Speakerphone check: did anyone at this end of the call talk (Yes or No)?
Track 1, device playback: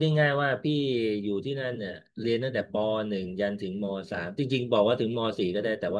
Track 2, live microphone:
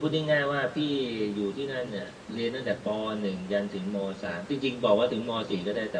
No